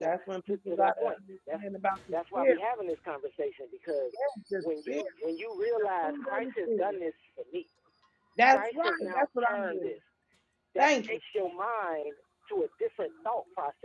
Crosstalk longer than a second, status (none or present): present